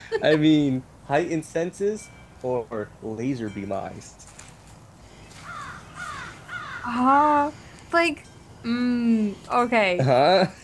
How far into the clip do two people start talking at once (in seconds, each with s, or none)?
none